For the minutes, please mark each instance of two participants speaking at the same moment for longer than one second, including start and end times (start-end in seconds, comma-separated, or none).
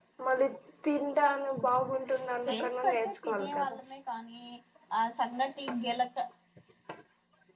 2.5-3.8